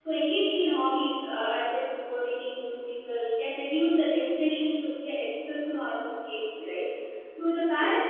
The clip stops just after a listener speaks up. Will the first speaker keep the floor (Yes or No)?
Yes